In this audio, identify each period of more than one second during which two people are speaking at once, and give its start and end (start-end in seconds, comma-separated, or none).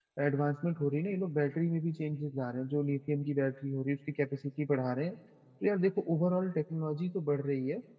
none